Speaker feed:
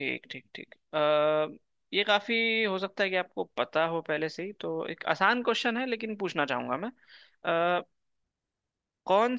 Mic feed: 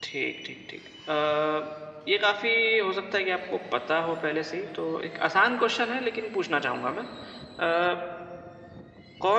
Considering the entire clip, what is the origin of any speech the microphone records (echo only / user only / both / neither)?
echo only